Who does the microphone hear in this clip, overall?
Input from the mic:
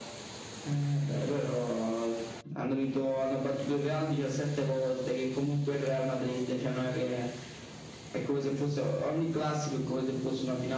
echo only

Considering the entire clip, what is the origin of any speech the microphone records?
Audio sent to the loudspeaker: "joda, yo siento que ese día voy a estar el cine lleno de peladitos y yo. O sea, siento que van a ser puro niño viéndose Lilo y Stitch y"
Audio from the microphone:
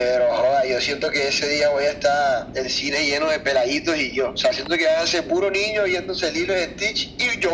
echo only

